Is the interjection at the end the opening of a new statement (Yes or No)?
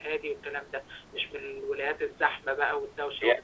Yes